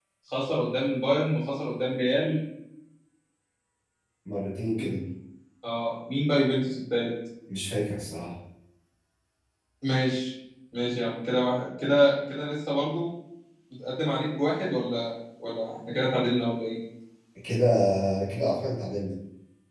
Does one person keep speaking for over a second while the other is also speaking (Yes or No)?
No